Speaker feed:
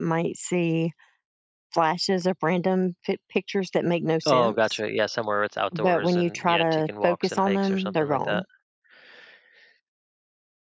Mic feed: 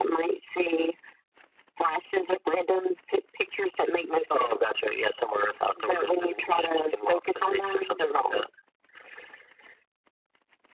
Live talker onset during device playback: none

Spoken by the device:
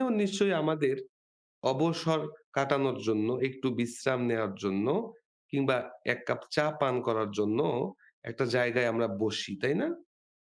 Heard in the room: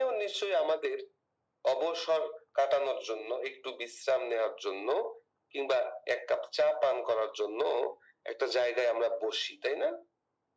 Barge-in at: none

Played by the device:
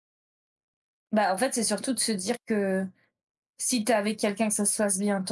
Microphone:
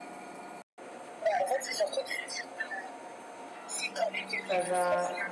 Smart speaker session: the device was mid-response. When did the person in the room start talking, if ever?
4.4 s

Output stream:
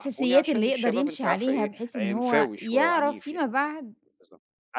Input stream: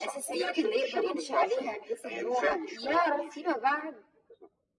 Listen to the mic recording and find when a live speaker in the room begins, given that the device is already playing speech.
none

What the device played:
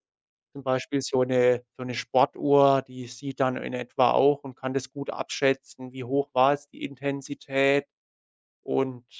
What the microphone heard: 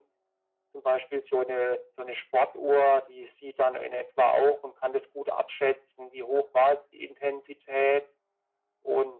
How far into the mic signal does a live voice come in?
none

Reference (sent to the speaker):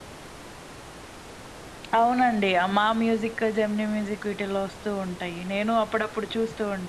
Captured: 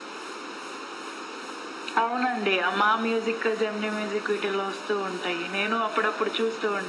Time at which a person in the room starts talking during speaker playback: none

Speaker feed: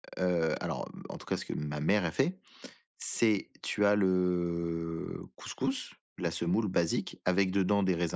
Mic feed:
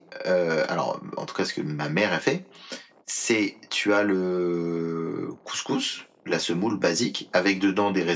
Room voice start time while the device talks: none

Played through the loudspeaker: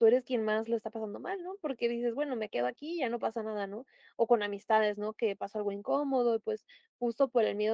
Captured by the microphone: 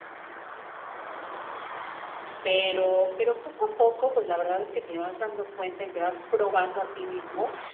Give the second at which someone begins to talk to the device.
2.4 s

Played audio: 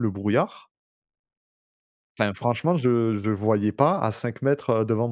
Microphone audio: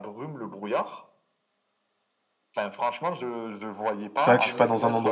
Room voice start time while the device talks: 4.2 s

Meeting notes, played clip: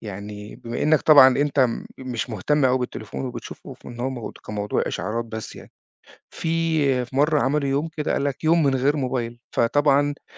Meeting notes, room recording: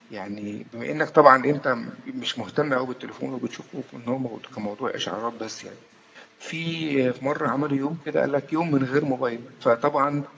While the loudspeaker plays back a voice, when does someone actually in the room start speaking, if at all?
none

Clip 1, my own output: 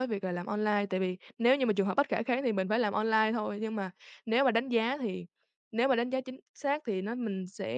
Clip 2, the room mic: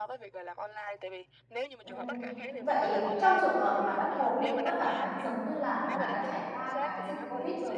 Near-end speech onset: 1.8 s

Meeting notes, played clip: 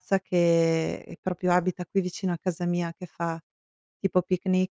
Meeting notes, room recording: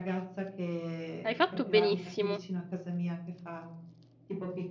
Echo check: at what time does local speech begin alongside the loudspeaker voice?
1.2 s

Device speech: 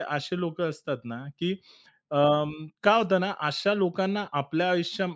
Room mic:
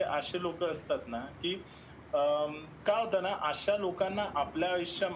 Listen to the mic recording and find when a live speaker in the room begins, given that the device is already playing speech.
none

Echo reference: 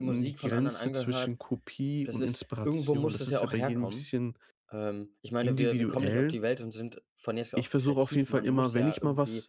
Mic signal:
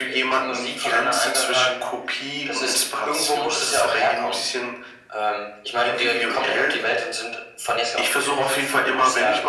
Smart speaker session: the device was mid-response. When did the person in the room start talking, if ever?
none

